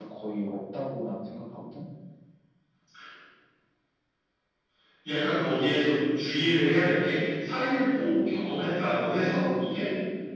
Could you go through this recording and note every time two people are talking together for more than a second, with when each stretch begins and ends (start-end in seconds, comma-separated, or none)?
none